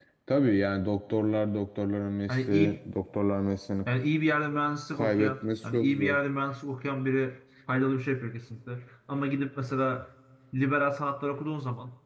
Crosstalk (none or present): present